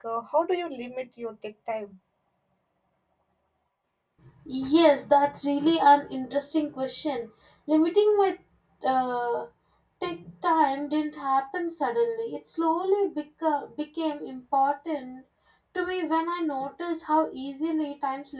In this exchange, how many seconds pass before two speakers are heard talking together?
none

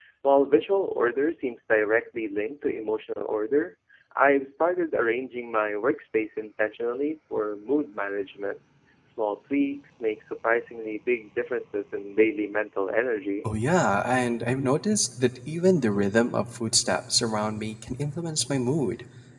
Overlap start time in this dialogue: none

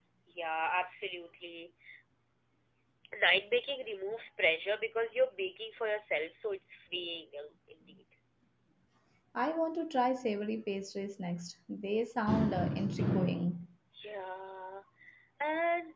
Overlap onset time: none

